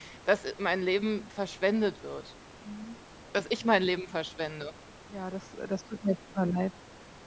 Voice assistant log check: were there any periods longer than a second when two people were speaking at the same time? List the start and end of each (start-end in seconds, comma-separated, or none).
none